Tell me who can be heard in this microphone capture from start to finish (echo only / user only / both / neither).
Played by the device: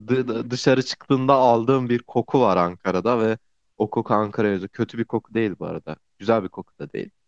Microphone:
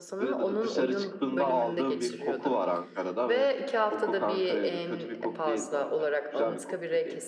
both